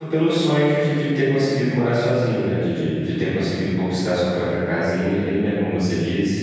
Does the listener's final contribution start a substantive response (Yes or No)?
No